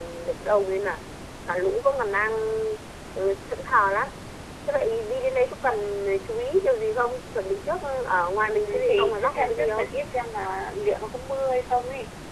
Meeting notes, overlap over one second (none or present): present